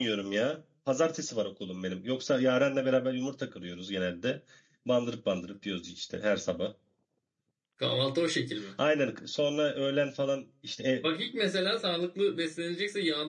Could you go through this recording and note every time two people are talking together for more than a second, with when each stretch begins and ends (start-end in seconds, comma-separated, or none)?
none